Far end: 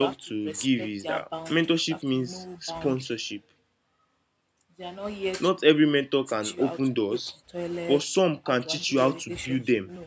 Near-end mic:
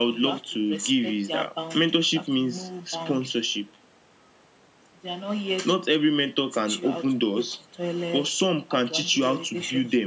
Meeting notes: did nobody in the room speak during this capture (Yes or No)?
Yes